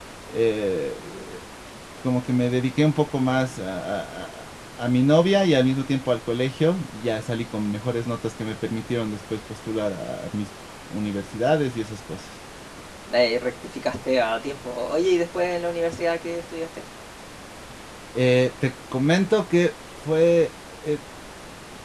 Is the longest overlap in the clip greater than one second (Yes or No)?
No